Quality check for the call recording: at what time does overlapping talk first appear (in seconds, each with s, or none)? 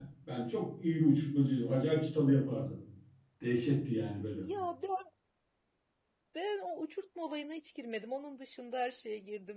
none